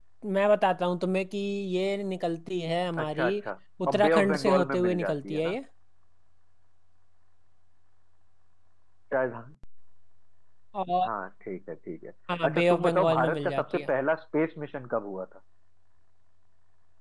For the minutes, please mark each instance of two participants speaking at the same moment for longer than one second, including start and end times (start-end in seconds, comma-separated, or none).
3.9-5.6, 12.4-13.9